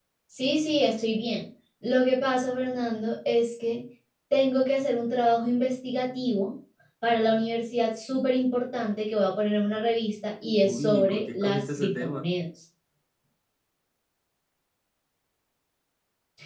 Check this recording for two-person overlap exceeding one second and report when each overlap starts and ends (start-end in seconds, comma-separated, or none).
10.6-12.2